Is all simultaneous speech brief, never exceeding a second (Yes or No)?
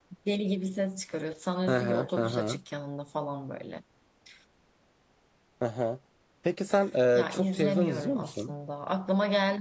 No